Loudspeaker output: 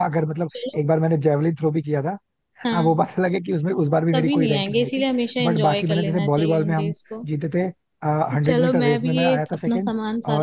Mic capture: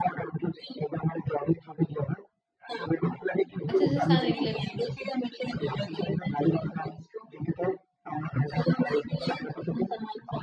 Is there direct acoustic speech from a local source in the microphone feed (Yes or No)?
Yes